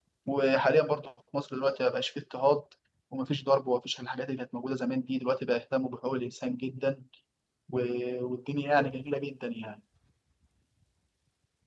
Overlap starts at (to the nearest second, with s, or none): none